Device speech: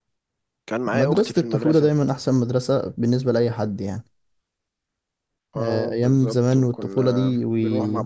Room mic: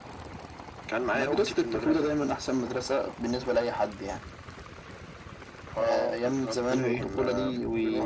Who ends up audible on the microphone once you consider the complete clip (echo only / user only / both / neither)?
both